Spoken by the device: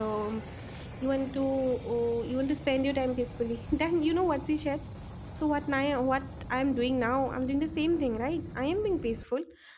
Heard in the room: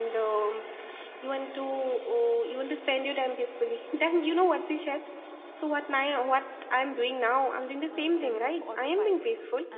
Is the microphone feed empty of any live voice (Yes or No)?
No